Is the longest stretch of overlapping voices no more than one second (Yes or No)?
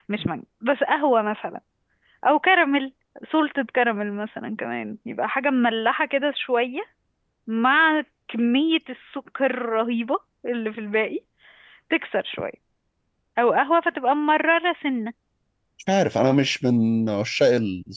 Yes